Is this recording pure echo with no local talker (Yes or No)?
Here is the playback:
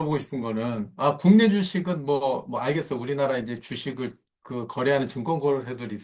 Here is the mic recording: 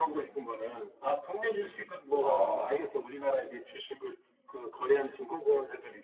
No